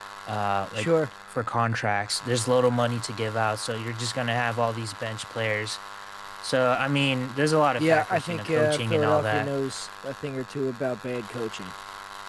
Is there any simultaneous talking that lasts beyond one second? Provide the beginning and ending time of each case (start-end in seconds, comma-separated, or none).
7.8-9.5